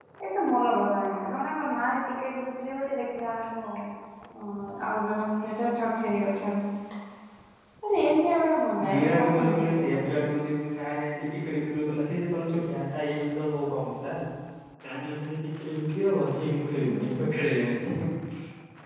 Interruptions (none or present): present